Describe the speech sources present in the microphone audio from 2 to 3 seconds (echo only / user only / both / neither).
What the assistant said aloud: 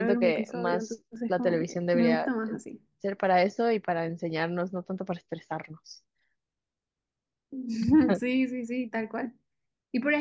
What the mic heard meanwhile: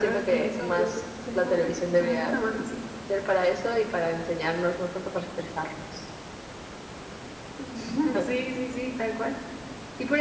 echo only